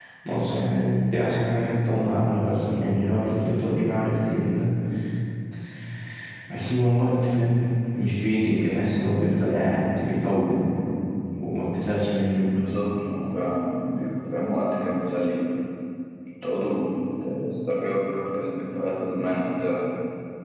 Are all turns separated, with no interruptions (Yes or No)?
Yes